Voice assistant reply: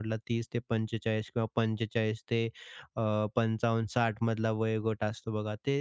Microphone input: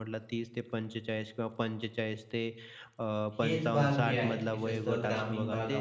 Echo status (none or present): present